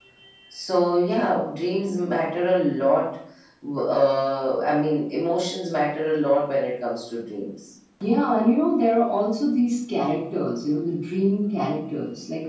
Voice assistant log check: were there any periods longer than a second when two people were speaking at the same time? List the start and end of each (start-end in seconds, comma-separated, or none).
none